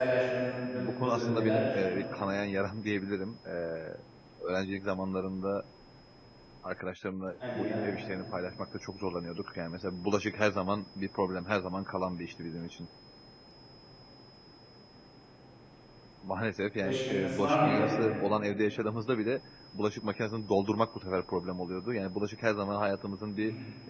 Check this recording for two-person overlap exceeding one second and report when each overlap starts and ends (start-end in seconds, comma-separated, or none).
0.7-2.0, 16.8-18.1